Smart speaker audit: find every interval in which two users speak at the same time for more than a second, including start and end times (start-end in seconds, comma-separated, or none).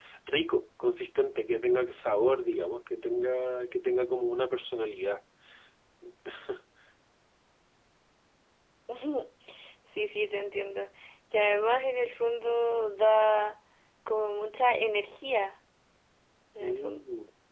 none